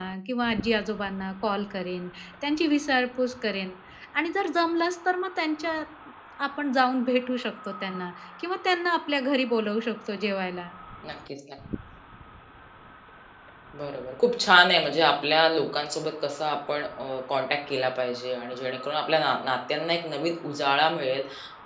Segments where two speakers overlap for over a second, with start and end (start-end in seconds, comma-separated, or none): none